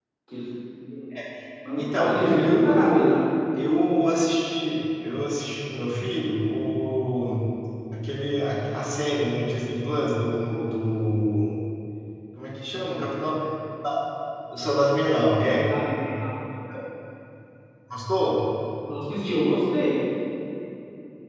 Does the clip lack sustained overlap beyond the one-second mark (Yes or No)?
No